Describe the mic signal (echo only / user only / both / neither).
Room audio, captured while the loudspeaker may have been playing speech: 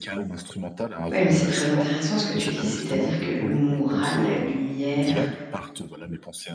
both